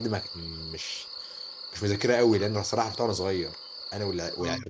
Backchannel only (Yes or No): Yes